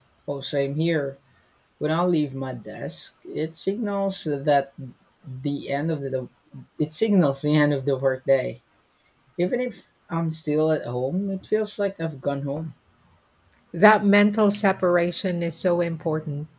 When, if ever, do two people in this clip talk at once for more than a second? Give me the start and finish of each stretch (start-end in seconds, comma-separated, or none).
none